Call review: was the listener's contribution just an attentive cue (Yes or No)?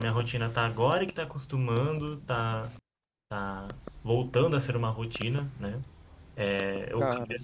Yes